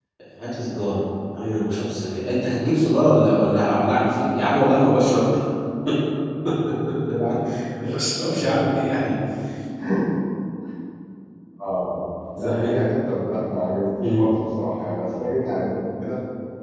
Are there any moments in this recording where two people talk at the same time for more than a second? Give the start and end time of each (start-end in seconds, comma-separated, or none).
none